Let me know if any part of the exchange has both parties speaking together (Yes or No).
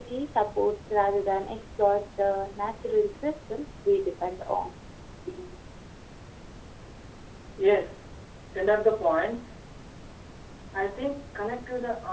No